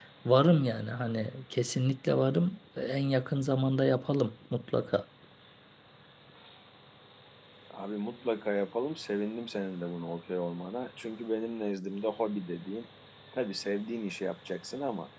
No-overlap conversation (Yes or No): Yes